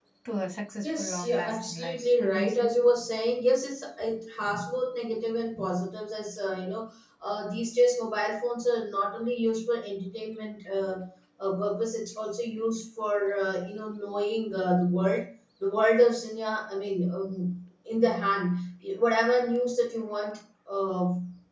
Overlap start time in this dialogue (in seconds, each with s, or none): 0.8 s